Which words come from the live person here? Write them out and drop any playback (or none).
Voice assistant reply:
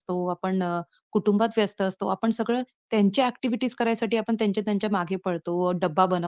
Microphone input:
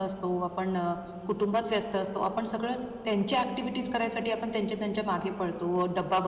none